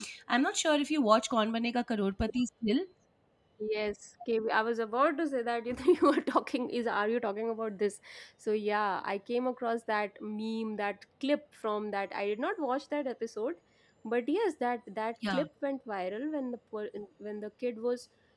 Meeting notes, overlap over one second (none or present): none